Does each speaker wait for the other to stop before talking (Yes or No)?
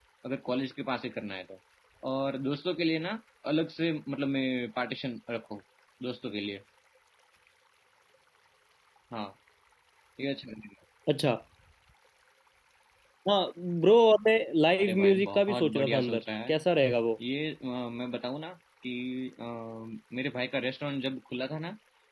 No